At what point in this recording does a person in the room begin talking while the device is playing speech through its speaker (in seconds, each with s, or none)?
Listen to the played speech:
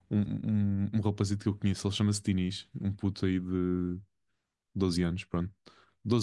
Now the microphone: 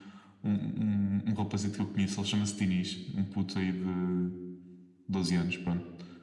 none